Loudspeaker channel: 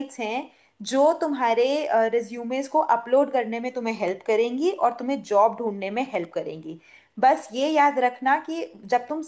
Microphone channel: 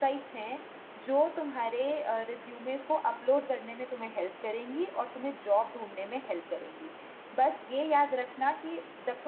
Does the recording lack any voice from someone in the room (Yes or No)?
Yes